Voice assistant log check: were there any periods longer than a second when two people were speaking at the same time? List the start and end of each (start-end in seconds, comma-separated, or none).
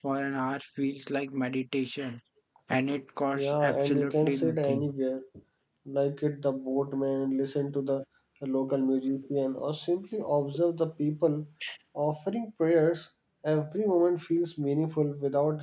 3.3-4.9